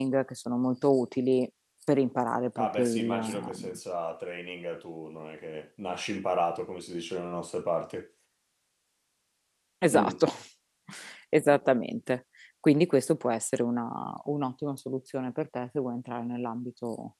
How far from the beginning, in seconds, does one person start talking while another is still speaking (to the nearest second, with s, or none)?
3 s